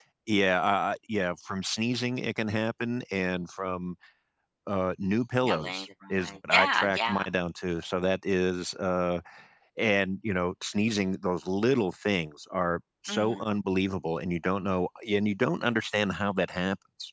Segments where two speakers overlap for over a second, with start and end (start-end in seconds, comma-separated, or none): 5.4-7.3